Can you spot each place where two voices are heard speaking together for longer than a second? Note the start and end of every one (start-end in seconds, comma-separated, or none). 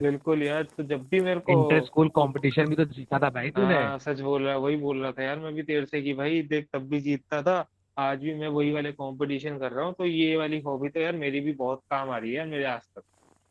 none